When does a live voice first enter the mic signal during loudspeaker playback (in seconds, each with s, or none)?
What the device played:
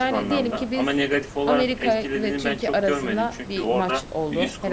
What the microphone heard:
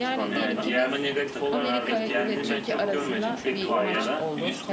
0.3 s